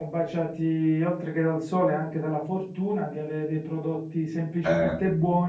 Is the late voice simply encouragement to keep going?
Yes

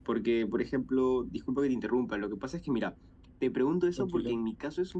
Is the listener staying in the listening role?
Yes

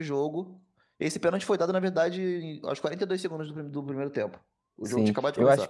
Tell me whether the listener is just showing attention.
No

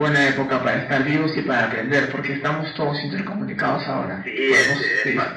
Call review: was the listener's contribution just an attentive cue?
No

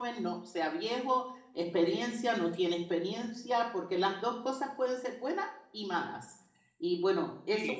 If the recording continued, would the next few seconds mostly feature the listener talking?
Yes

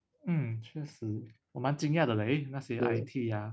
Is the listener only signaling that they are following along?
Yes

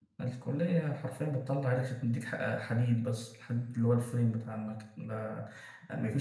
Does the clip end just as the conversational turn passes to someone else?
No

